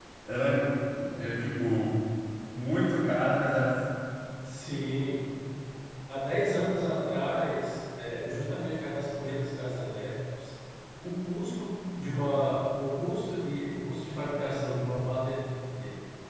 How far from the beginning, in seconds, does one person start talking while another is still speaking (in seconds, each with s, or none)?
none